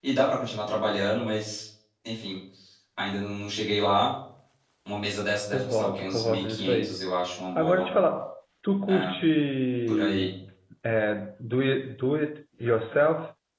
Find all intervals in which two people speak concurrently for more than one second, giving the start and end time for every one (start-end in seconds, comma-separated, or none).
5.5-7.0